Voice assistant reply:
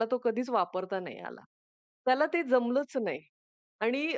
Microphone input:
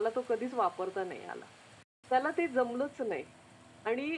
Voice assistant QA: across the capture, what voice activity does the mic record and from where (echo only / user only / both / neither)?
echo only